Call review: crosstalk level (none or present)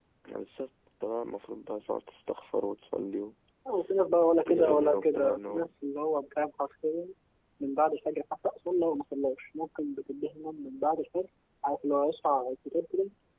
present